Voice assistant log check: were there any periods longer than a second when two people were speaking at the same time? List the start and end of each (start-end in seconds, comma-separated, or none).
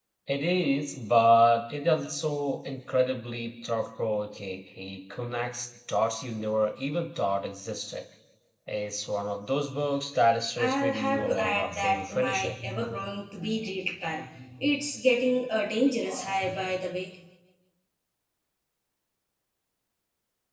10.6-12.6